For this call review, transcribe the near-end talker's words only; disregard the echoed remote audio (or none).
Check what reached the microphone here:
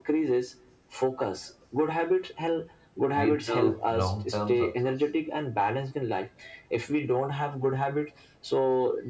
Lead to long term success.